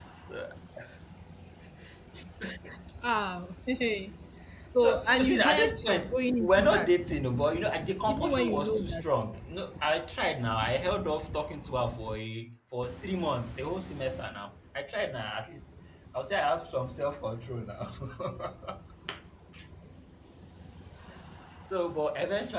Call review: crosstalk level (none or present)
present